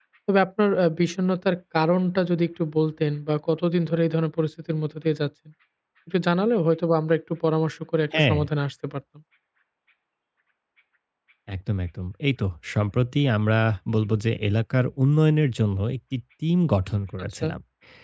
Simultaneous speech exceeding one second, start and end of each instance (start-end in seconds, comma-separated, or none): none